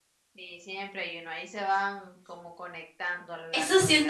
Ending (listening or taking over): taking over